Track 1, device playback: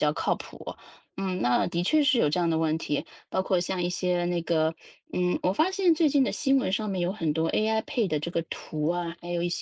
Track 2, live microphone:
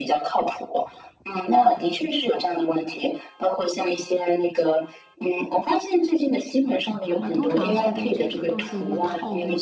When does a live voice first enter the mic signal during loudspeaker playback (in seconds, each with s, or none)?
7.2 s